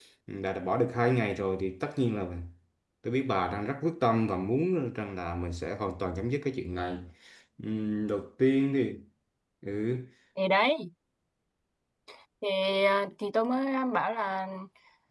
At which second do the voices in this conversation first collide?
none

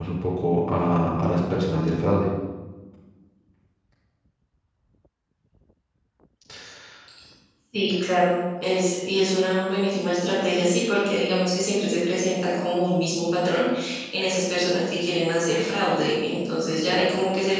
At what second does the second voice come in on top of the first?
none

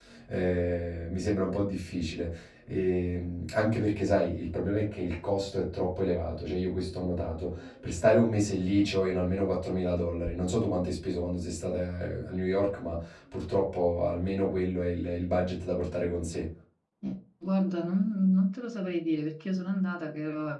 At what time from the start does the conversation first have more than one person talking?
none

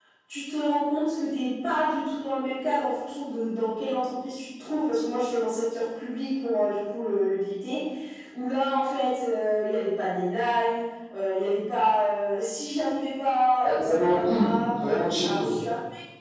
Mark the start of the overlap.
13.6 s

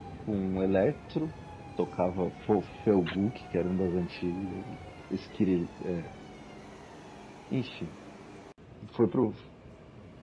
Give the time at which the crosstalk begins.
none

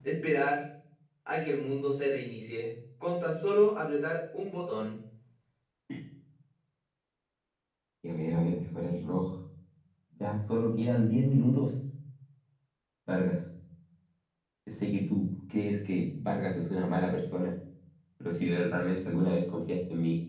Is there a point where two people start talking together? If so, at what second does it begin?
none

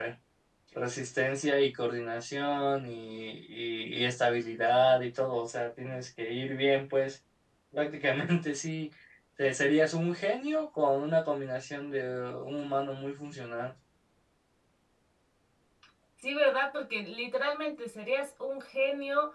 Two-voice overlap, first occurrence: none

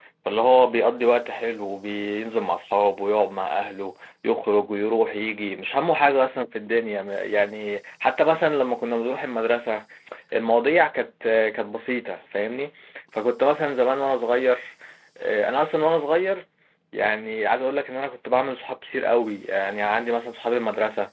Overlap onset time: none

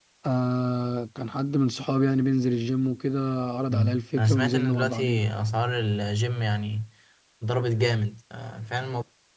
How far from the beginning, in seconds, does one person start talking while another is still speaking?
3.7 s

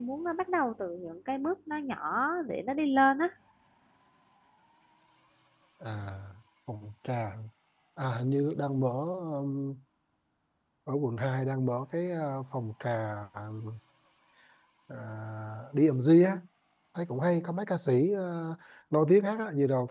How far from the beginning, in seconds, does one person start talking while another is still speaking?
none

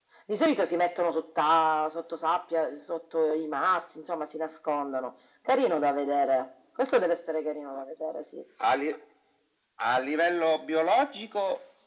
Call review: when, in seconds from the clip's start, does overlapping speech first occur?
none

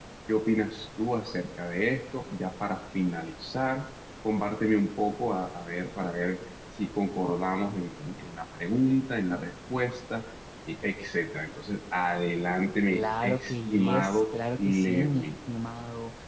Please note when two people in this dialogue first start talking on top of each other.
12.9 s

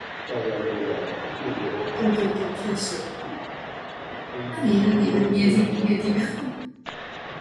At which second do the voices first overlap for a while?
4.5 s

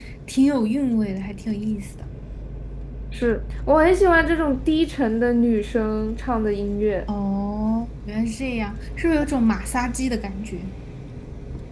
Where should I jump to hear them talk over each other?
none

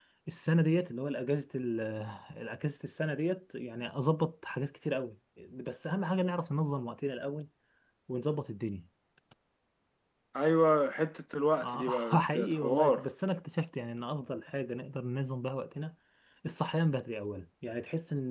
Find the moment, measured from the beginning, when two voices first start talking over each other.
11.6 s

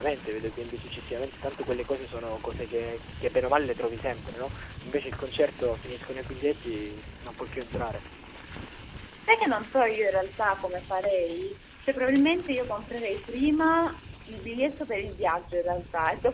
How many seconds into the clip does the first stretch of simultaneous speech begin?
none

